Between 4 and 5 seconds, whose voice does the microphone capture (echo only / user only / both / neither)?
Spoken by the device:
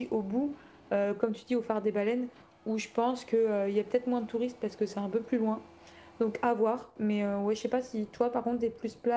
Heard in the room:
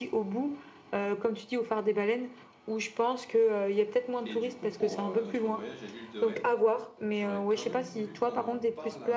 both